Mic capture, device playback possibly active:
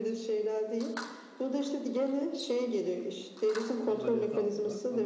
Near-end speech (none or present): present